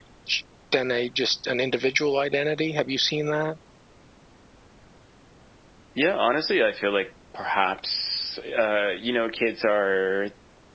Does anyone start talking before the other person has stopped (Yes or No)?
No